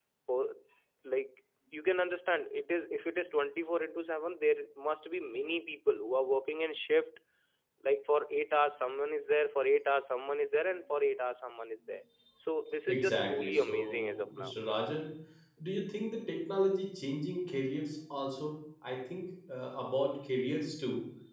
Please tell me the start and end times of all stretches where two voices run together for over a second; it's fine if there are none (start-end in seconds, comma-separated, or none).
12.9-14.5